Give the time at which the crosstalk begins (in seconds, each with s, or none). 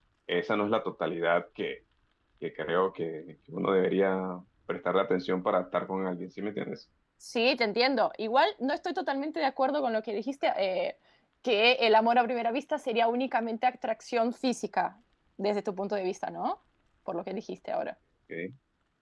none